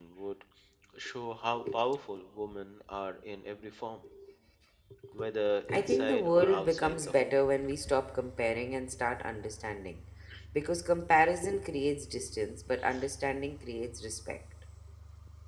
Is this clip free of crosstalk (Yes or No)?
No